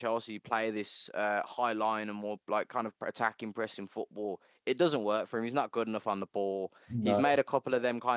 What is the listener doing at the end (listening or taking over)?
listening